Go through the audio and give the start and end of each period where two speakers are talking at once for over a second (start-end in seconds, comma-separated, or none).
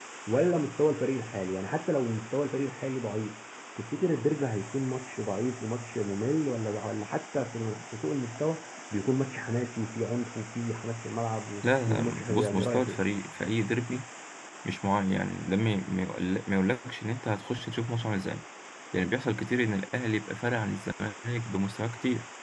11.6-13.0